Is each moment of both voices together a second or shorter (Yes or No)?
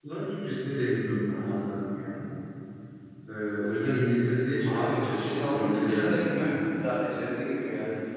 No